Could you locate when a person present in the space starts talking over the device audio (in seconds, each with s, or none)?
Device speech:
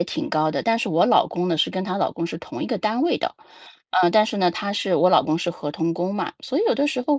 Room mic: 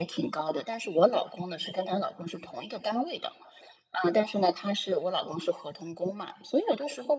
none